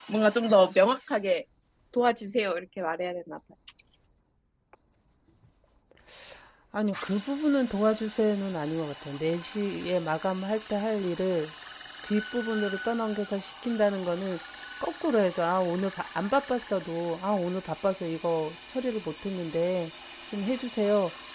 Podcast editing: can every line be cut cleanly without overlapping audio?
Yes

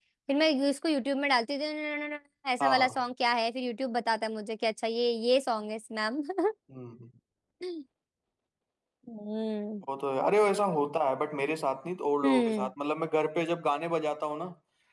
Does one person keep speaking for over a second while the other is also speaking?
No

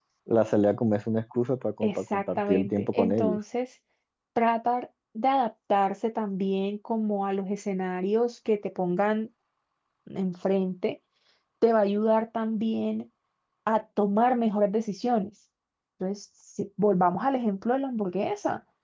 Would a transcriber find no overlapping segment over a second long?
No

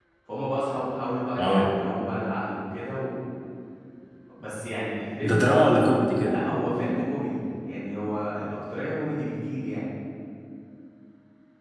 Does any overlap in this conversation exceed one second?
No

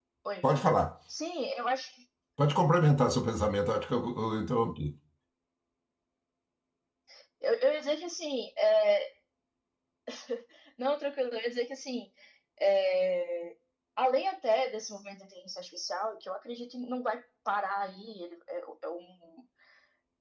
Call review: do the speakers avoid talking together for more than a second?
Yes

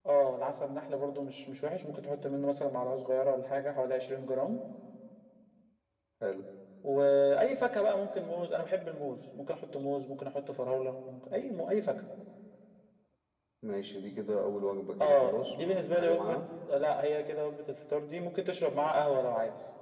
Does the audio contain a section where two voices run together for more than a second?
Yes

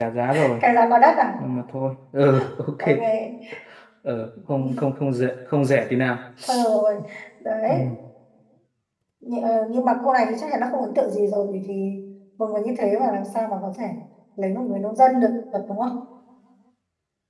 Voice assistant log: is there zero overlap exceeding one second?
Yes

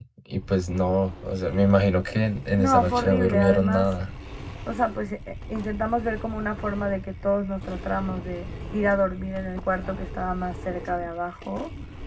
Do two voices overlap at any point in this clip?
Yes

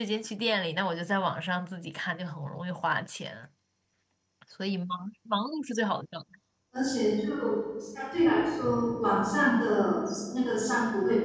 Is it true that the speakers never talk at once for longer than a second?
Yes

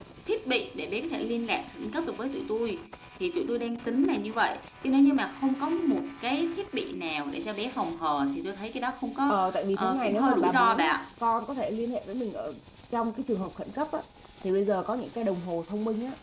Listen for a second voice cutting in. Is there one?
Yes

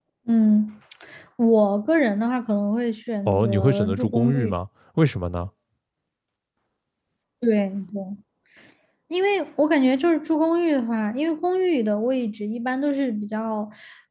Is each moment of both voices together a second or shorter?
No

